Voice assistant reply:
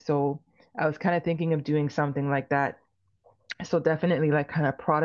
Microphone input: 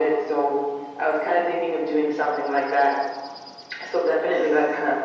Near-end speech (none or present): none